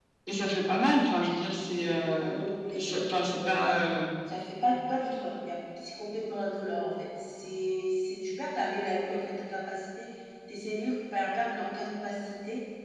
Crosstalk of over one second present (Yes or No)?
Yes